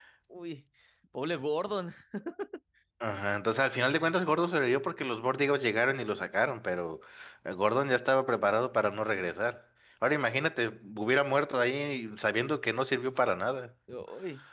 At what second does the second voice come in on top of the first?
none

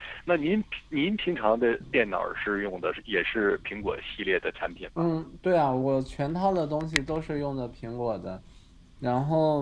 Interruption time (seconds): none

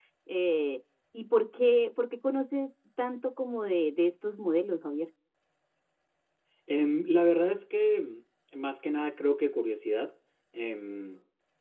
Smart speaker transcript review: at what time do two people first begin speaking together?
none

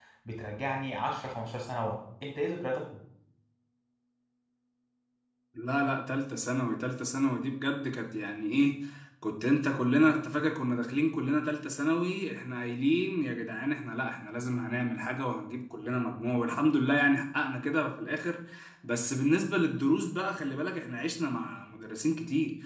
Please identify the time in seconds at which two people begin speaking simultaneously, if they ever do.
none

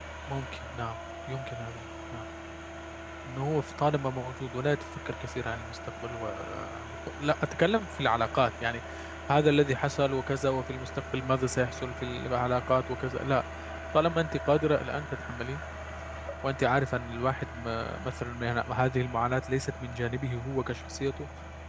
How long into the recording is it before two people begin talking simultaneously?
none

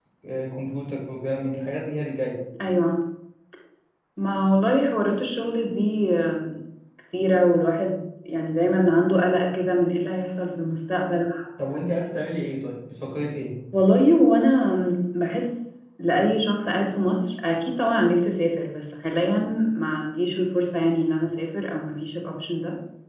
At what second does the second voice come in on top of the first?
none

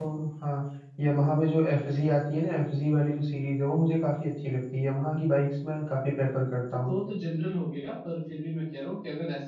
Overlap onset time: none

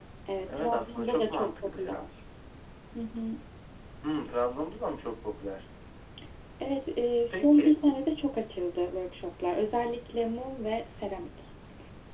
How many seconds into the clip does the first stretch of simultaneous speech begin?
0.6 s

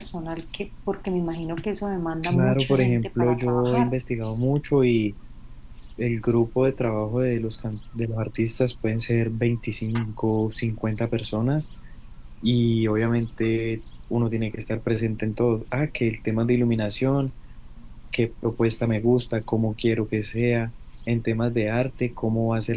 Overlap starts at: 2.2 s

